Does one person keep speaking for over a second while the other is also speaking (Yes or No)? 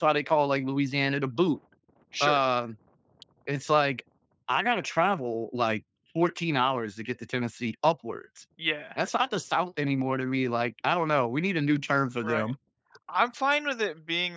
No